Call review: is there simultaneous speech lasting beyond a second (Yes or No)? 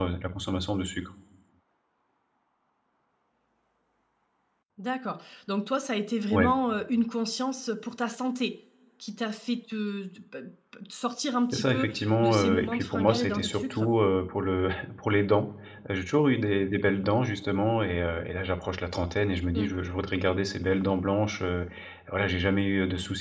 Yes